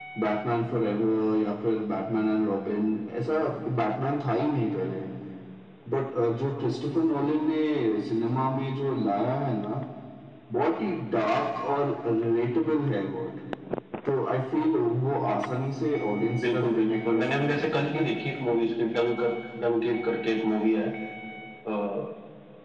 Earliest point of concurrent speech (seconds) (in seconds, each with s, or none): 16.2 s